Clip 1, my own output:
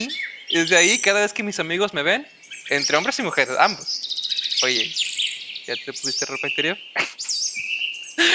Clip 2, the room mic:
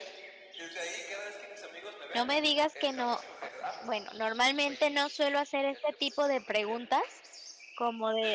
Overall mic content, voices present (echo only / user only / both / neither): both